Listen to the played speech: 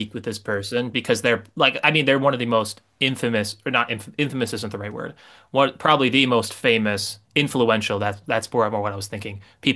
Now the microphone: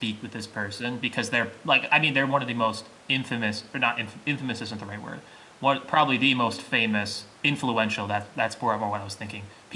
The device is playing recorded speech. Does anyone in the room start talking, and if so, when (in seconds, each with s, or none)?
none